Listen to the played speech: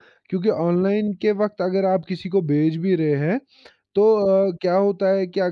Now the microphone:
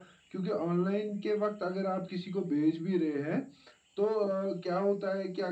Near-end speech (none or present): none